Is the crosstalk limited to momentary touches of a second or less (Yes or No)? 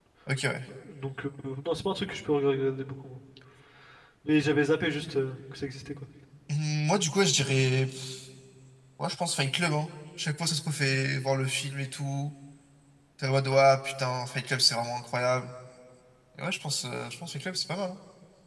Yes